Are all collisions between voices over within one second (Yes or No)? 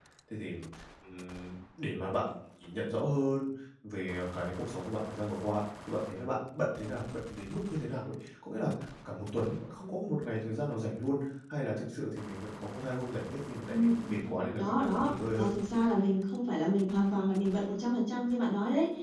No